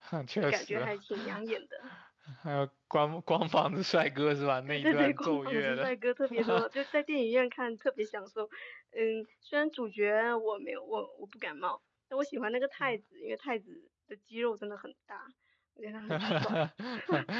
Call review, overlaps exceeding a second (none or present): present